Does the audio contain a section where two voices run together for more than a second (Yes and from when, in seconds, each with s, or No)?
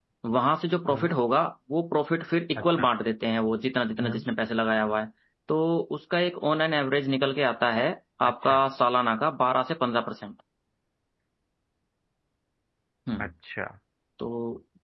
No